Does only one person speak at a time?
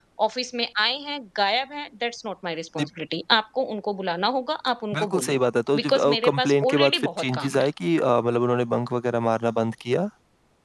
No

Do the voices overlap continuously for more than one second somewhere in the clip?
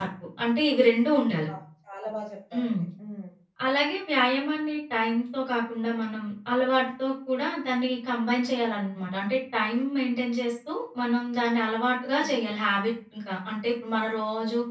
No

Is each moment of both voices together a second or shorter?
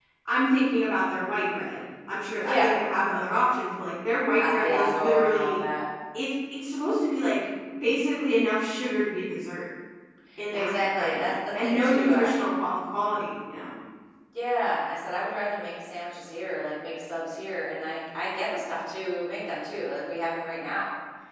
No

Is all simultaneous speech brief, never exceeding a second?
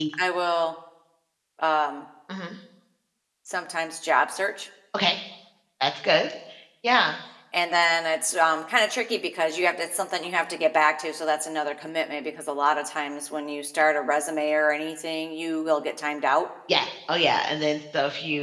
Yes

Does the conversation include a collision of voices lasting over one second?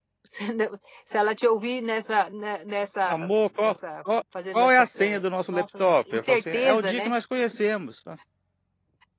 Yes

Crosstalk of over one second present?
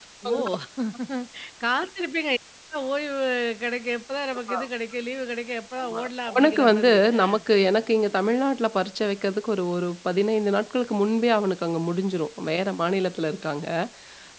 Yes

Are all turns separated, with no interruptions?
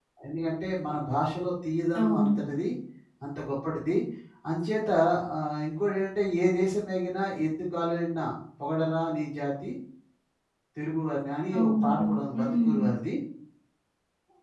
No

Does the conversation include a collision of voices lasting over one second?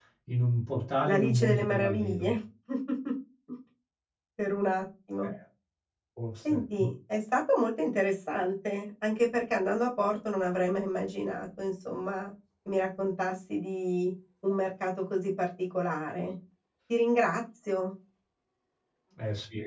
Yes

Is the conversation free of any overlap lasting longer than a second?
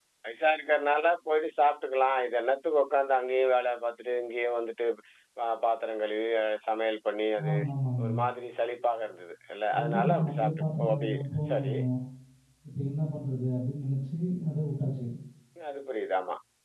No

